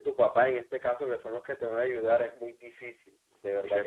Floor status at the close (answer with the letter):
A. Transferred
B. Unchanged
A